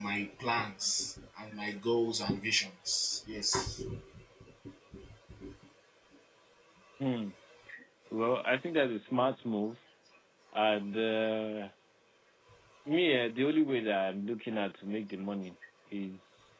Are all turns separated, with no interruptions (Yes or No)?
Yes